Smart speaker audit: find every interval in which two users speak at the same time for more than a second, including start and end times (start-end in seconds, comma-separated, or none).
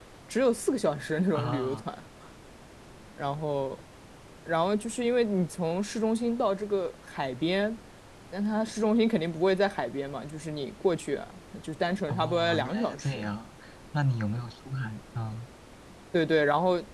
12.1-13.3